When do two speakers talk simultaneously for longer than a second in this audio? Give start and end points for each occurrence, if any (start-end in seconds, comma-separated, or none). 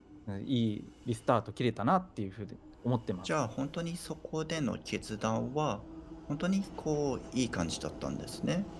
none